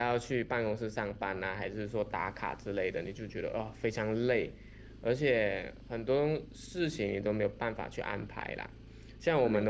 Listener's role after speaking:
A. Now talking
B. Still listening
B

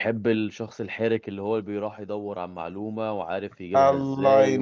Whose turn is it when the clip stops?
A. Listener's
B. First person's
A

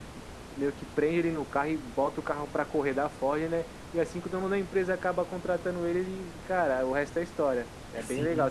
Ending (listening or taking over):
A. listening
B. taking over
B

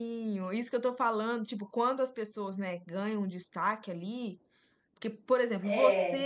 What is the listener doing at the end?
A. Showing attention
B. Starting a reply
A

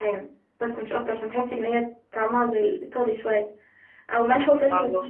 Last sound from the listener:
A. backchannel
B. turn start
A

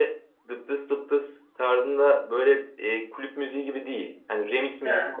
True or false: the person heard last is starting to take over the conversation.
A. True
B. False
B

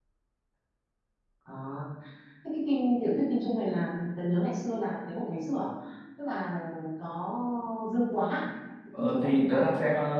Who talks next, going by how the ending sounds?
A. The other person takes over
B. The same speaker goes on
A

